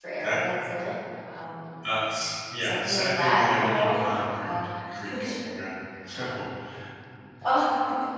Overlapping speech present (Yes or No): Yes